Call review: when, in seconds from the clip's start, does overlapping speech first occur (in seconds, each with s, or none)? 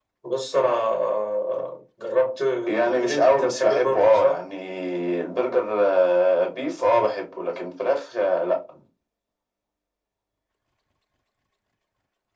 2.9 s